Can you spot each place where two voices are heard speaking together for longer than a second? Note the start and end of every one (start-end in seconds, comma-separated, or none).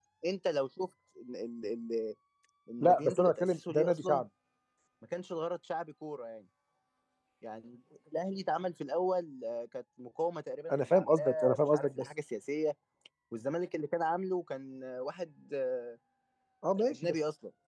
2.8-4.2, 10.7-12.1